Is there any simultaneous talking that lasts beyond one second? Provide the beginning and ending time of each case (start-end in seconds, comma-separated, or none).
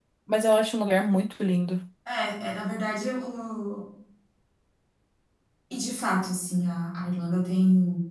none